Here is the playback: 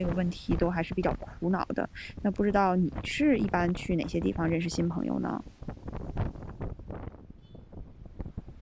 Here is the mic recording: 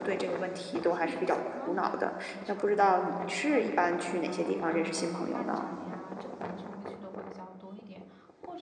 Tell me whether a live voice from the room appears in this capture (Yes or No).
Yes